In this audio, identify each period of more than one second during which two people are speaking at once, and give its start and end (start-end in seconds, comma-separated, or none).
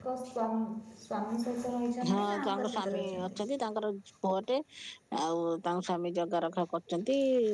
2.1-3.4